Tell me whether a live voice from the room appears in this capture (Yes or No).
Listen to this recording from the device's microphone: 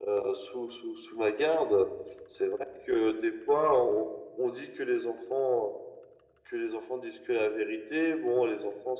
No